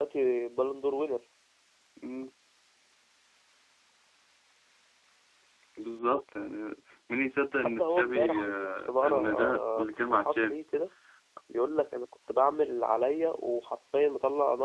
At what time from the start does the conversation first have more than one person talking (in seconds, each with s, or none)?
7.6 s